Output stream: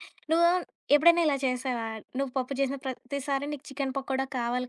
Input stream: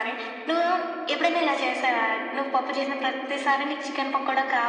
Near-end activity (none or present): none